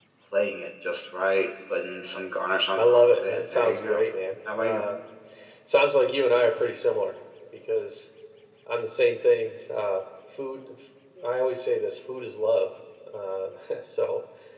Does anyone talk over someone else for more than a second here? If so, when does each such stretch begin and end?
2.8-4.0

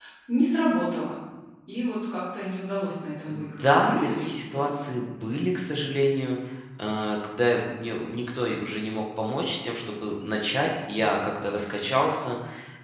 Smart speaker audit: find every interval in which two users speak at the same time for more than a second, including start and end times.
3.3-4.9

